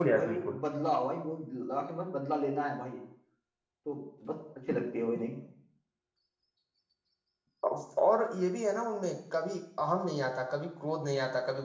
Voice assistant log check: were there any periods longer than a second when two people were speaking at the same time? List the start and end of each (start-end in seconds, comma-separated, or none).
none